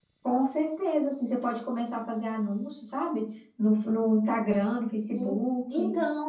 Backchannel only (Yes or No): No